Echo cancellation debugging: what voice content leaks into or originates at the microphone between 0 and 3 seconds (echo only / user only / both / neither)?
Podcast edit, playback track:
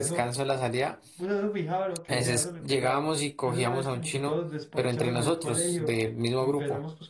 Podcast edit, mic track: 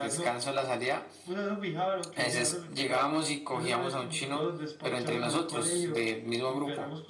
echo only